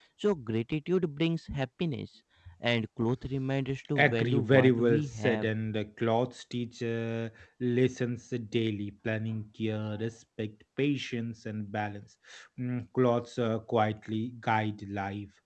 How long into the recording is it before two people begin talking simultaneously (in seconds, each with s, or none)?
4.0 s